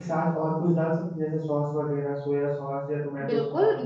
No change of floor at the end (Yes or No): No